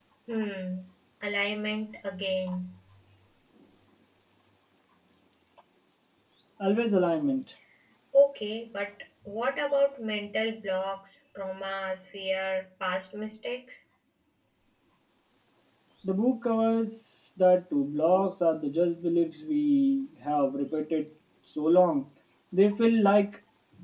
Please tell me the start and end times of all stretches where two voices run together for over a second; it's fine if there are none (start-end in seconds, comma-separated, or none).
none